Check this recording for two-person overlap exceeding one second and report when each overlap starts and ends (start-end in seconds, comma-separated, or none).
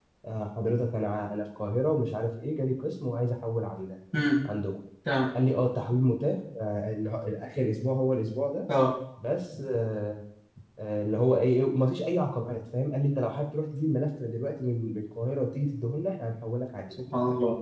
none